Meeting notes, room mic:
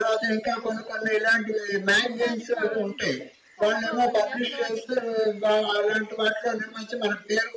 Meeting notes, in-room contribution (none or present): present